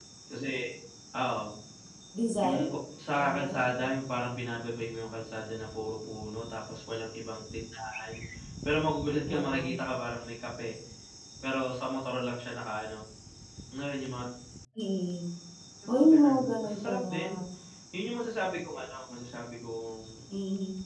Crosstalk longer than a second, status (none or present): present